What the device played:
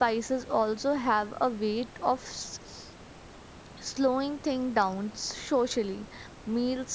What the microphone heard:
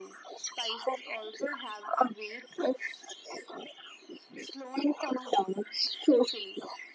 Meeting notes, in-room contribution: none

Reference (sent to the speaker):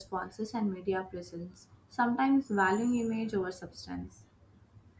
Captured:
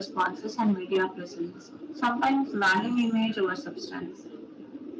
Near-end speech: none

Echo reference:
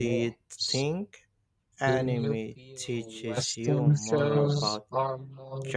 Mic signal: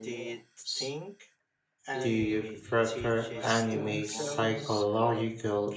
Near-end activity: present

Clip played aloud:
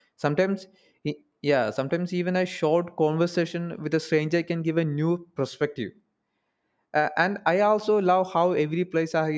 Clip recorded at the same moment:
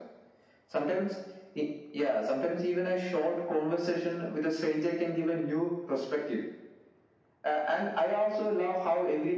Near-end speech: none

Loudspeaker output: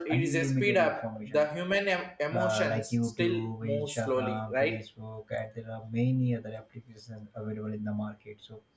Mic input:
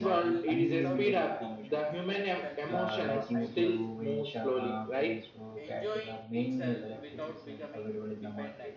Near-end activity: present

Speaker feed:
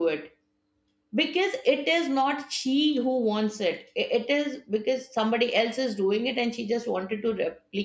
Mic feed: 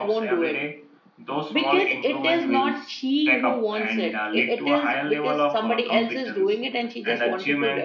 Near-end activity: present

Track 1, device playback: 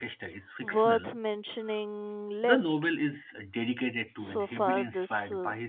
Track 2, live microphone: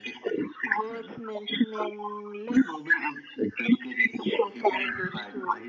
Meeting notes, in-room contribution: none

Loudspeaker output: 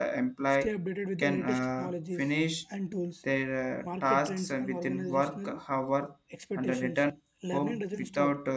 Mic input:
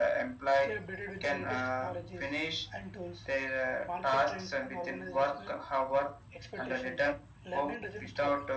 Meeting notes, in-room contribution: none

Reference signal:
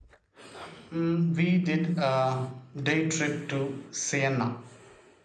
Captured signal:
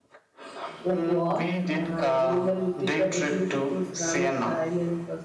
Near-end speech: present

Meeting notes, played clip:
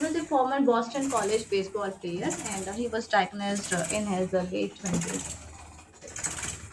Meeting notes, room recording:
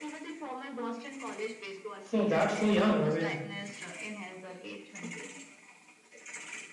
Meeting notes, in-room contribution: present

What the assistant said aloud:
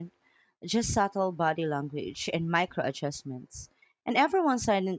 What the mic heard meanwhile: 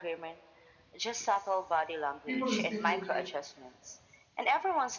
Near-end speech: present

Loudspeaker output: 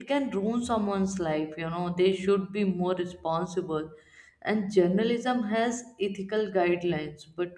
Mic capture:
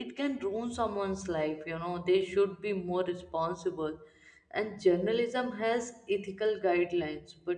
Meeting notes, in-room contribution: none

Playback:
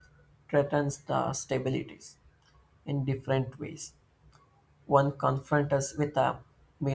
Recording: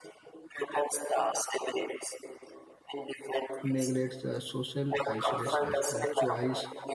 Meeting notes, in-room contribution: present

